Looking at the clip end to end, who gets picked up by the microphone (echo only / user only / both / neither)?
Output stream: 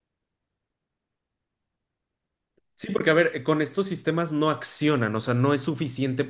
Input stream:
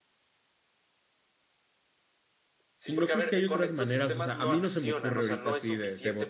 both